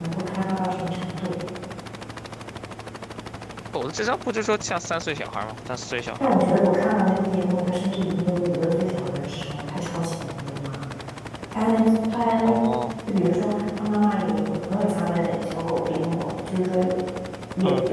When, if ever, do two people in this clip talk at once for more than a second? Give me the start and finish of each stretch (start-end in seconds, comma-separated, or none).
none